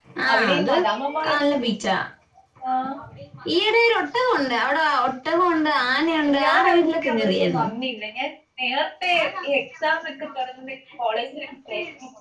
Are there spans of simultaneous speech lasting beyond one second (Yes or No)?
Yes